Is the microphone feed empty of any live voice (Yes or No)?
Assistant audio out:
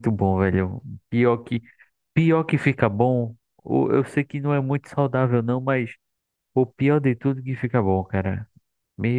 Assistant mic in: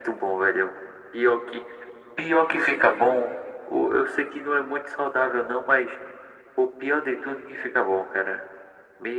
Yes